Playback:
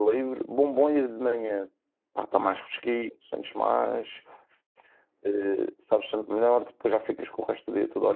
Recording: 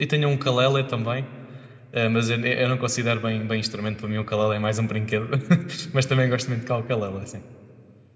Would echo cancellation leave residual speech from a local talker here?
Yes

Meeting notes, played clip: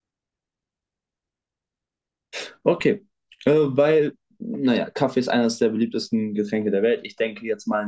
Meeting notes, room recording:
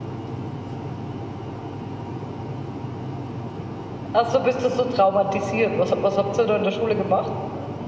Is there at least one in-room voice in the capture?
Yes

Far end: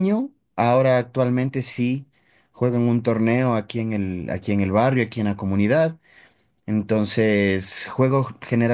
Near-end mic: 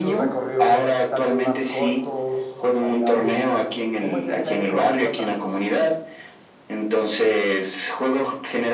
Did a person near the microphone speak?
Yes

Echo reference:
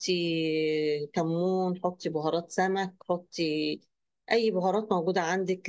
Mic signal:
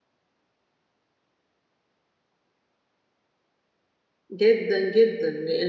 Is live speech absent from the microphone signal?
No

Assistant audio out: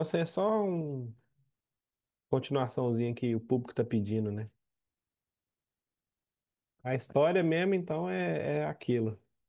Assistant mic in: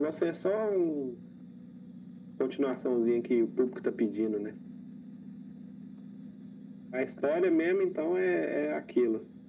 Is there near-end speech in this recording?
No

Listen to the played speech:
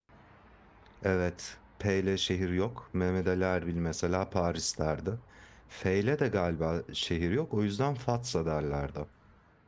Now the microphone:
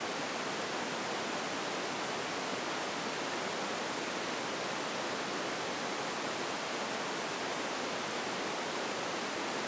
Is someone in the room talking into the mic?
No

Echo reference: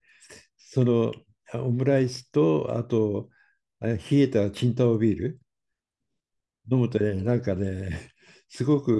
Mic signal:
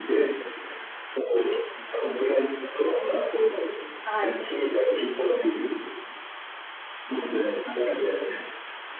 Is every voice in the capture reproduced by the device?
No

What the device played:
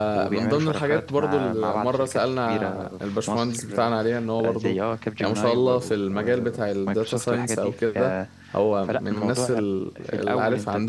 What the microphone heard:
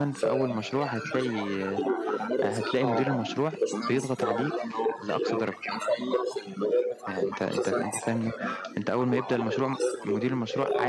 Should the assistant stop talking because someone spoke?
Yes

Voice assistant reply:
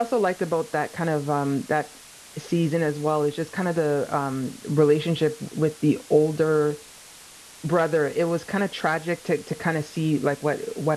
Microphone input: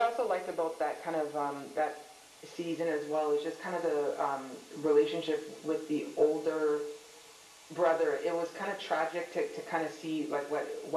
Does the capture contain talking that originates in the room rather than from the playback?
No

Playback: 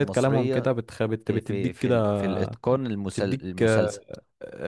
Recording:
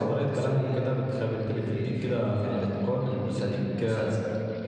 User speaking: No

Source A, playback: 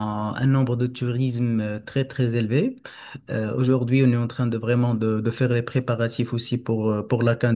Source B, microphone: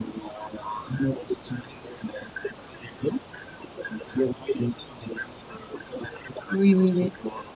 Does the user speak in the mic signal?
Yes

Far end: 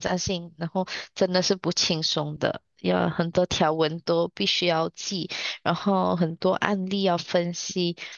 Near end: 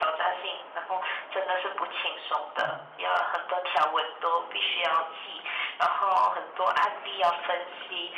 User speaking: Yes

